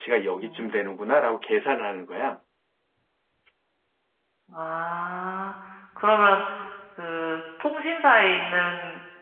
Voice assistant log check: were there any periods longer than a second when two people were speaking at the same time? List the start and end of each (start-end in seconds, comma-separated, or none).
none